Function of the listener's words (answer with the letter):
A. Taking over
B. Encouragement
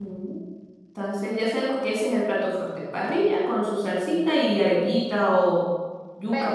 A